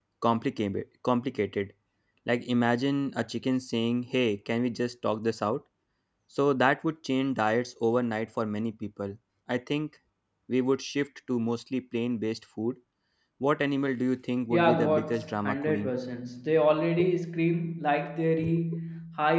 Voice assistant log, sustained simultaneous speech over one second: present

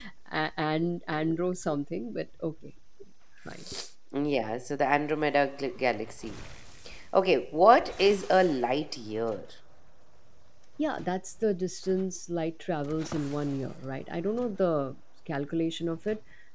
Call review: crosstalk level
none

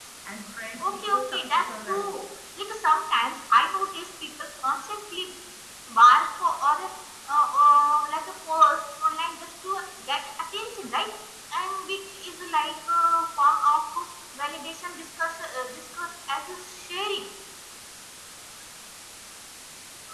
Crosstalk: present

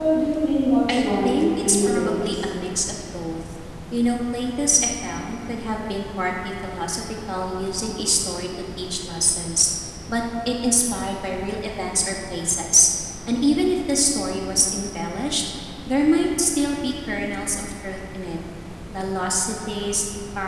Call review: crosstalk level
present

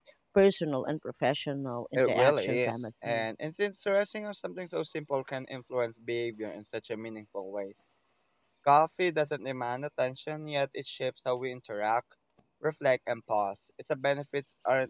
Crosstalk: present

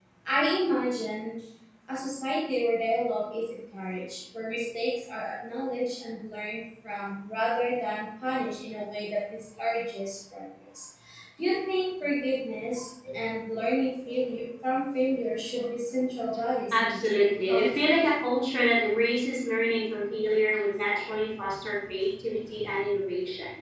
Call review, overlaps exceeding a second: present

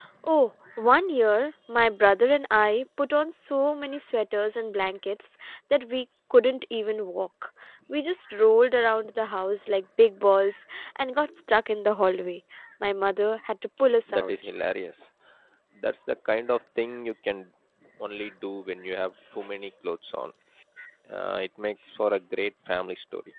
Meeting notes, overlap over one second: none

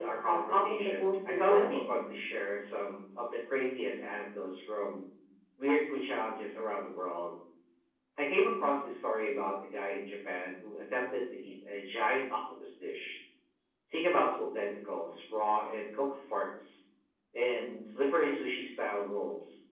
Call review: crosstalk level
present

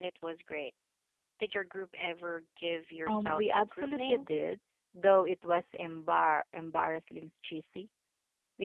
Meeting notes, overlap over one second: present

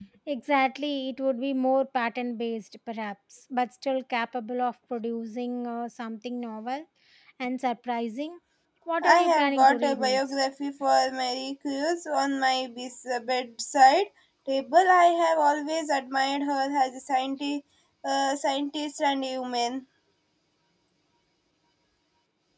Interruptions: present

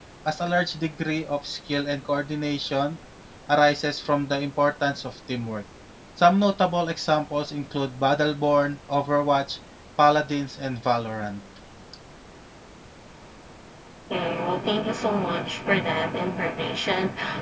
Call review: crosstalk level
none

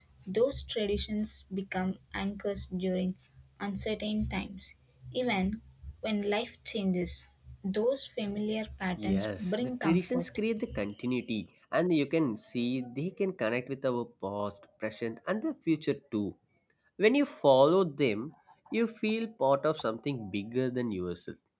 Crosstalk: present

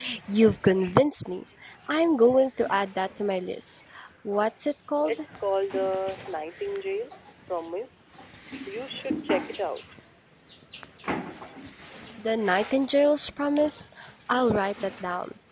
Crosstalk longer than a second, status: none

